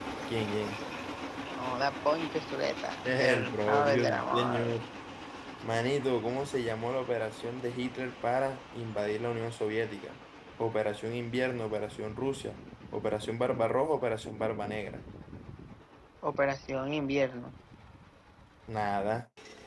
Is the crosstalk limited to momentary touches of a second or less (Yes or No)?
No